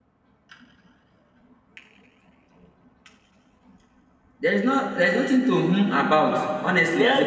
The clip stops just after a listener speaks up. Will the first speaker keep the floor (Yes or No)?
No